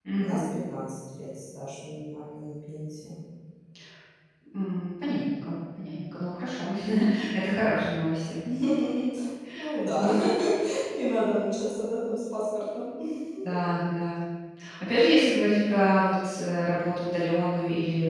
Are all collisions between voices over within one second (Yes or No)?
Yes